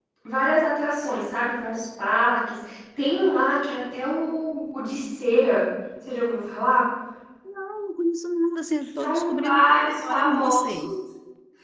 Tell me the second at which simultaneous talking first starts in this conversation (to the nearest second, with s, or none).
9 s